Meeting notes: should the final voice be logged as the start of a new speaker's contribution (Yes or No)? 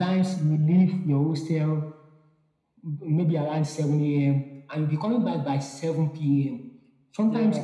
No